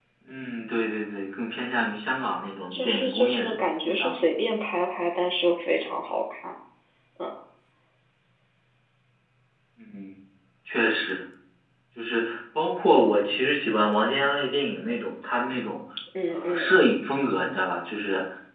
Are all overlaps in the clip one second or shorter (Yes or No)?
No